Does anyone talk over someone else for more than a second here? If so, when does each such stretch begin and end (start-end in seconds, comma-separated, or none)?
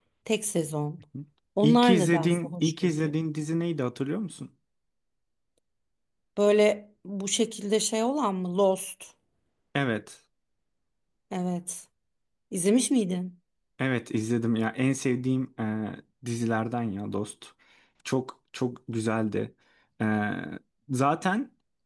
1.6-3.1